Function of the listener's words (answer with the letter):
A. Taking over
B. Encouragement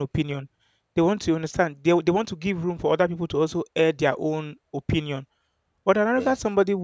B